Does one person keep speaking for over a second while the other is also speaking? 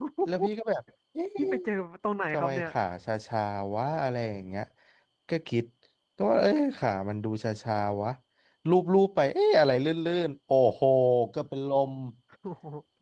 No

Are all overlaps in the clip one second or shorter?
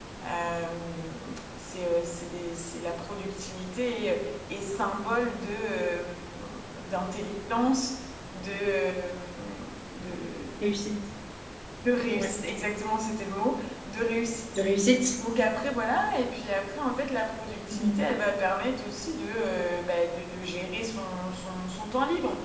Yes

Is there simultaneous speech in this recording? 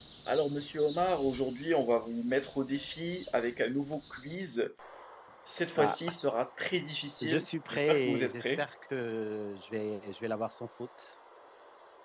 Yes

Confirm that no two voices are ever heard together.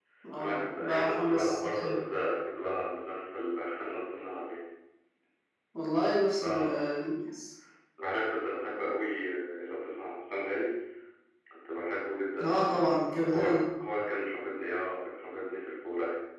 No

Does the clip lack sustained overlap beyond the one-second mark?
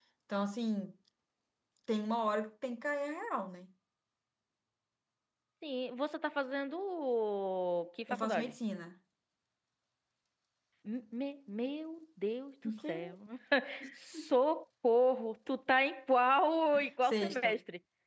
Yes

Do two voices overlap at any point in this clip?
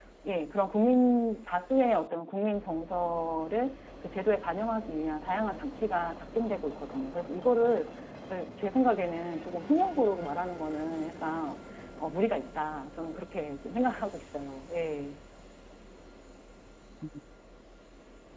No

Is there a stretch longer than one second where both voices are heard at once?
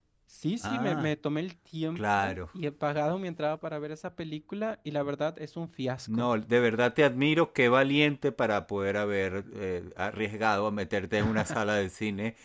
No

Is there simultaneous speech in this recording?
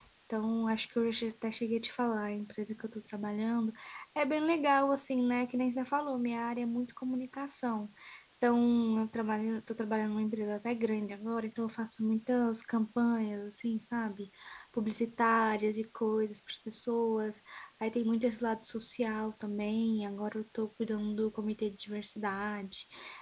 No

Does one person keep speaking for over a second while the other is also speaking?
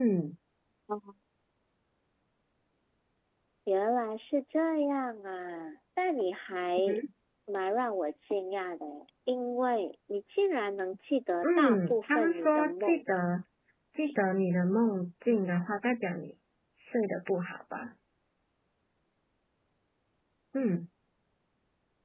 Yes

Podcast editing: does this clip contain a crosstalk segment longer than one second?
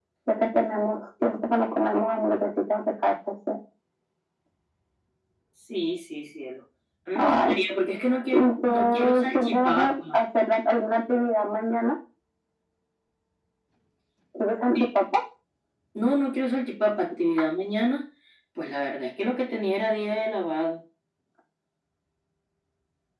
Yes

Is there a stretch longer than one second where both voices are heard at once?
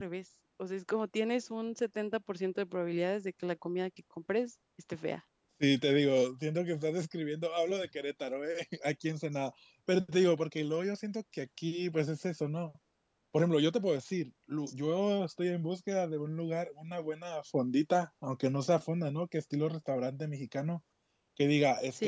No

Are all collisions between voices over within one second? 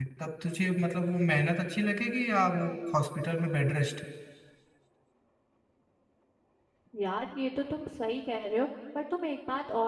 Yes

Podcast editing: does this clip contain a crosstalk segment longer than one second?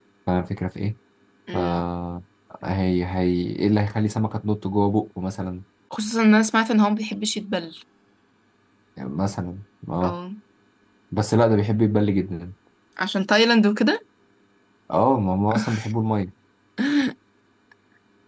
No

